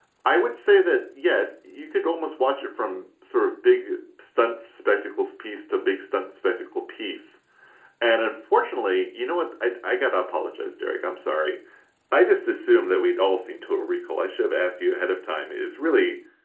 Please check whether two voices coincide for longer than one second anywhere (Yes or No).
No